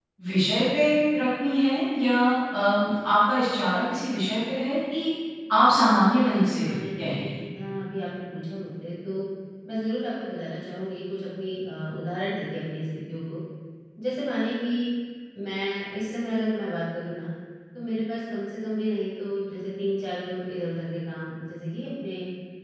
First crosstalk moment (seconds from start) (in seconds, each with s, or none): 5.7 s